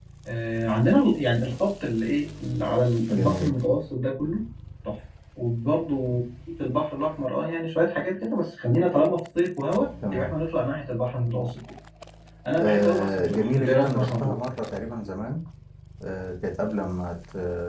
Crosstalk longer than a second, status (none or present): present